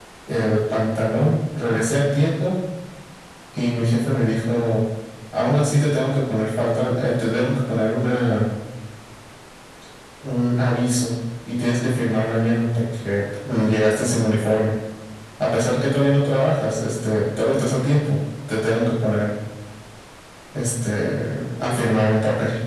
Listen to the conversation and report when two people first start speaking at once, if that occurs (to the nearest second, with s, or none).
none